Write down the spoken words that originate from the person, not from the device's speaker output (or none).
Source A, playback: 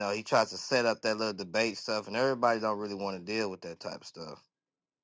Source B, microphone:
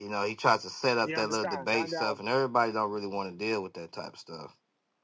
You understand? And um,